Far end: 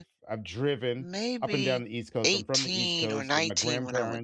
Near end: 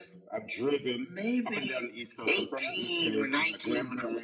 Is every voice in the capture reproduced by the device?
No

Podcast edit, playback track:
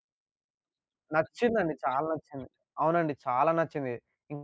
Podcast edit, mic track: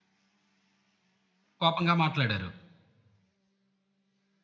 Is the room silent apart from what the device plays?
No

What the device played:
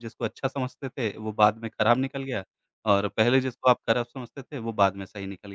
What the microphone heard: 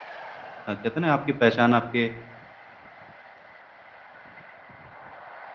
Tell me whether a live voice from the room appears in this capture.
Yes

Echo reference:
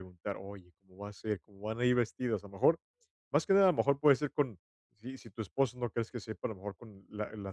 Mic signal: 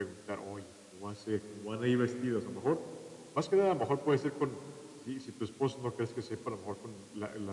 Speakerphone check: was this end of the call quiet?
Yes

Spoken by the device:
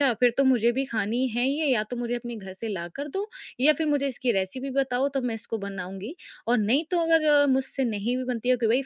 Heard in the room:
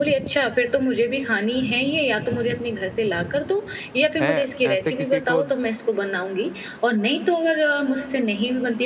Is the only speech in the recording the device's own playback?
No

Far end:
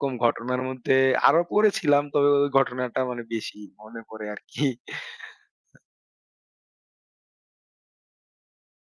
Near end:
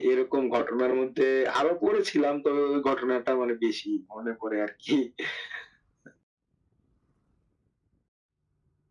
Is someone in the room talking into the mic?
No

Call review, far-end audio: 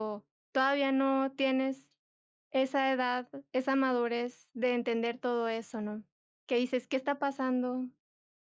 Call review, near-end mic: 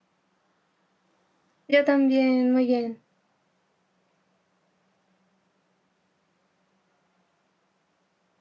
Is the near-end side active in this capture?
Yes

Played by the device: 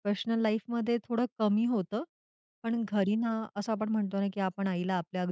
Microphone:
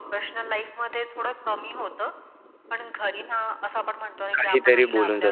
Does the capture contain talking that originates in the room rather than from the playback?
Yes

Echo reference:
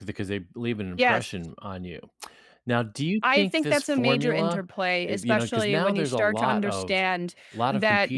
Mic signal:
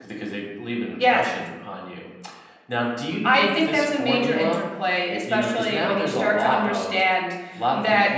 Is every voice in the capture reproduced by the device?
Yes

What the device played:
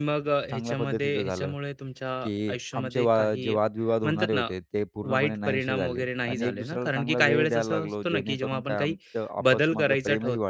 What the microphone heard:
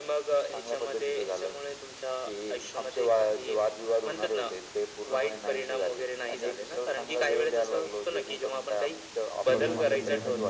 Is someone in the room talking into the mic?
Yes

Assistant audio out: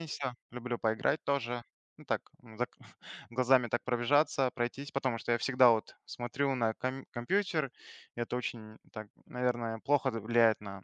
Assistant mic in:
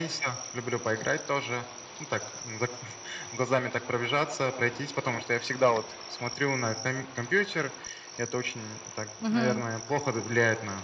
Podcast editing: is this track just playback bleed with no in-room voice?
No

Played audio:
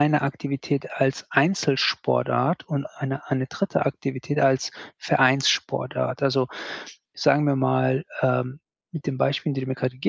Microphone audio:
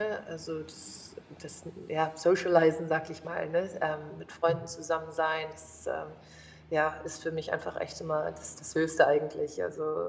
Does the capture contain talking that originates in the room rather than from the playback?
Yes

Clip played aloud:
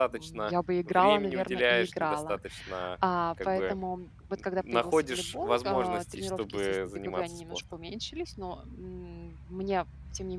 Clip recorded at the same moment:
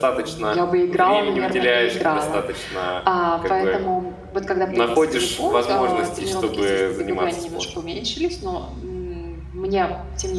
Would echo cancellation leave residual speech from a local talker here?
No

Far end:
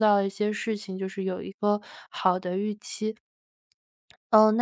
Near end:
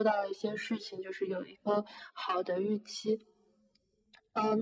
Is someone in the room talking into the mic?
No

